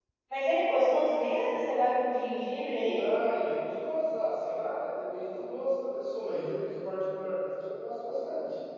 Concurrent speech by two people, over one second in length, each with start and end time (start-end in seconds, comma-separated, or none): none